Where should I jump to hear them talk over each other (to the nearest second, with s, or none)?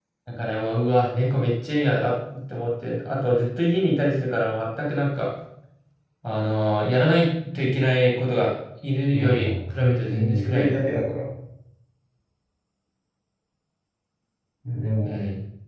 9 s